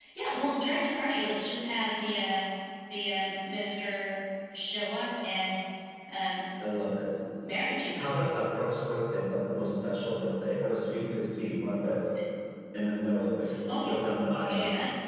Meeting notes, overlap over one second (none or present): none